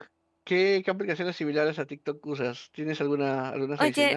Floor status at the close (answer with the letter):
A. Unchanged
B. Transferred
B